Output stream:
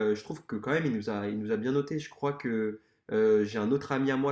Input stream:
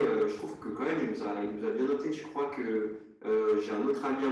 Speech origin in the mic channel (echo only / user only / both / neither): echo only